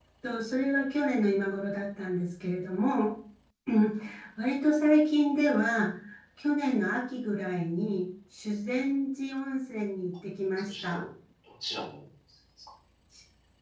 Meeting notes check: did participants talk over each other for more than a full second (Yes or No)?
No